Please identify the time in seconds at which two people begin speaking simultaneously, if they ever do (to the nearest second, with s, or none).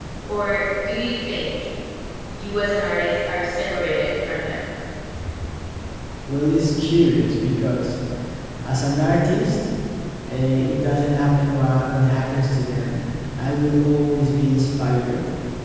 none